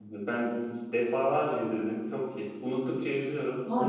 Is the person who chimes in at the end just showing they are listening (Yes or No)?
No